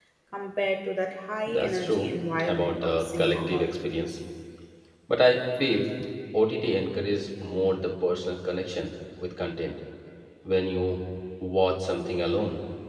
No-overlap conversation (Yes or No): No